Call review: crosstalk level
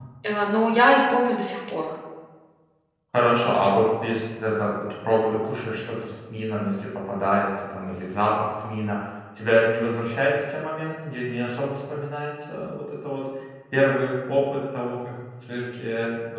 none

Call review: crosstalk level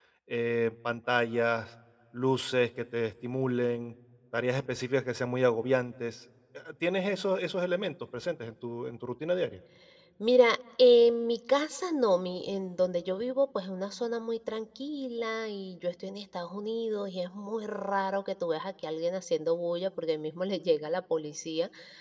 none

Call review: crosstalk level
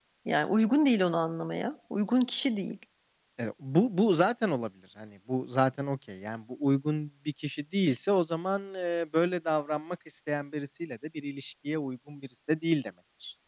none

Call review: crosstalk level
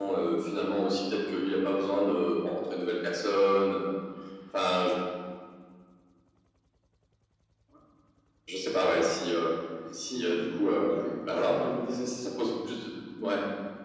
present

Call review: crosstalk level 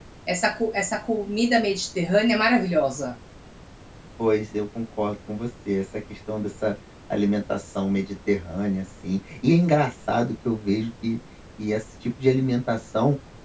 none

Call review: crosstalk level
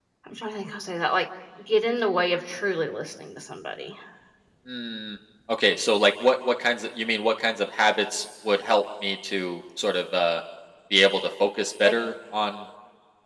none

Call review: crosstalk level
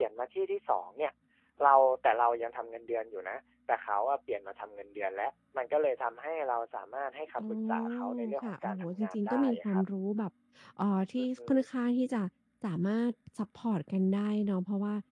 present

